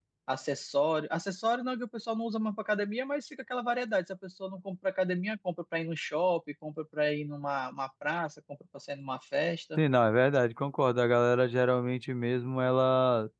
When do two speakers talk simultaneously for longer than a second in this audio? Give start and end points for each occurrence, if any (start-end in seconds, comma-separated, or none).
none